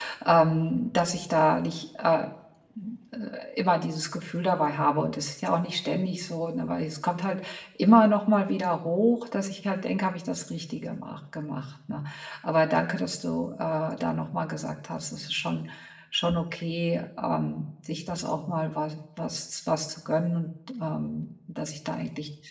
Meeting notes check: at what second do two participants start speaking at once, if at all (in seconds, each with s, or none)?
none